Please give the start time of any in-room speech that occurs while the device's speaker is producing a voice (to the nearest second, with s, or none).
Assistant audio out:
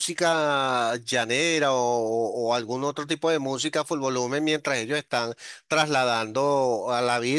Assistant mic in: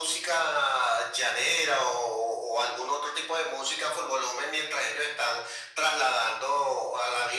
none